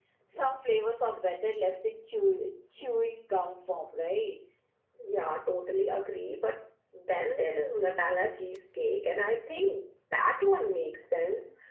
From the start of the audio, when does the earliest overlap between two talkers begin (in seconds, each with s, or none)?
none